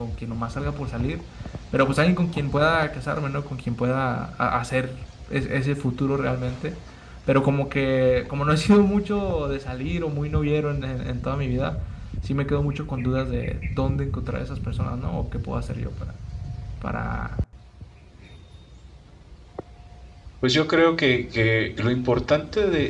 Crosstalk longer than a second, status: none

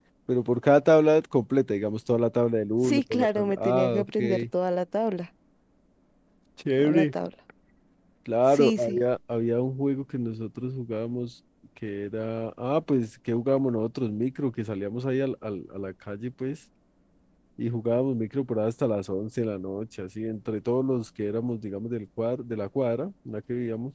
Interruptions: present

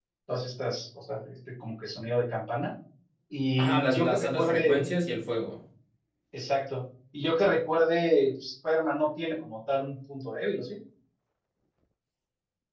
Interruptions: present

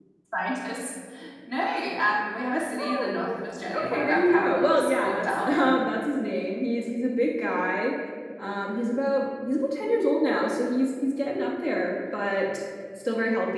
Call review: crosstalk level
present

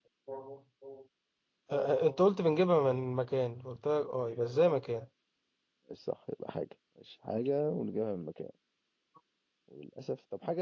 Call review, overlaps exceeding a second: none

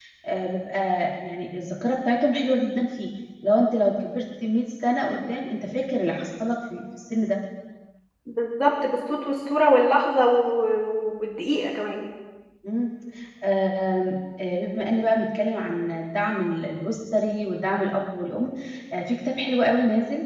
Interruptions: none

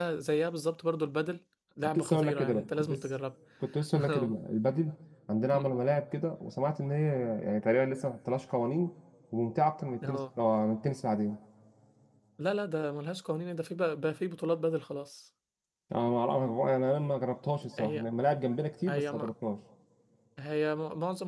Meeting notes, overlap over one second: present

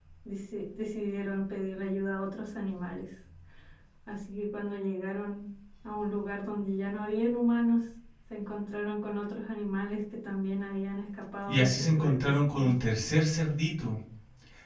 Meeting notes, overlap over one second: present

